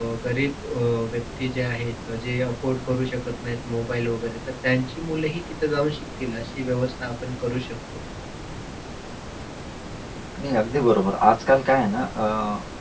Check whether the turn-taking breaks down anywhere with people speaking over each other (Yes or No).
No